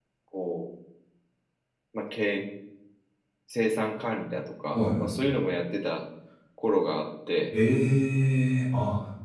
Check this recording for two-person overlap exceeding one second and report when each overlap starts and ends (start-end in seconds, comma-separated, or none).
none